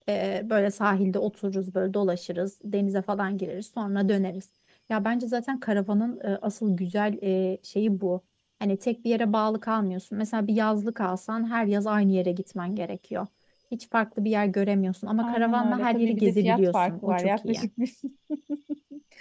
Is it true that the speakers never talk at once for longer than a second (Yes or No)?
No